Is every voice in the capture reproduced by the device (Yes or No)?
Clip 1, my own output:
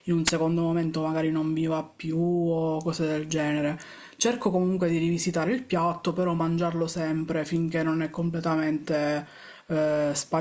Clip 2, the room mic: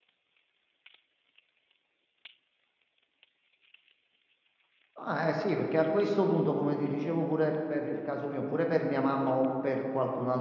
No